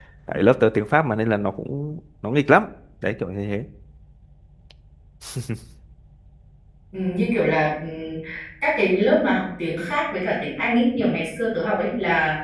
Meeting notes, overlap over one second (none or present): none